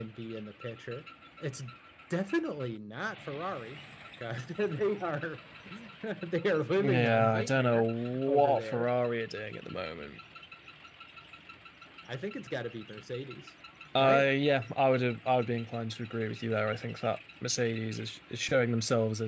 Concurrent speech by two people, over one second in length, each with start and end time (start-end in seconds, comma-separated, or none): 6.8-8.9